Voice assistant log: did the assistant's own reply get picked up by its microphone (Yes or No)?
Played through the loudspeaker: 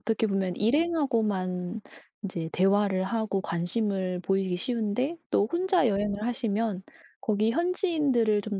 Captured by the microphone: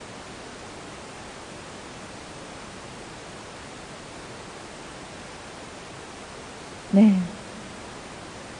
No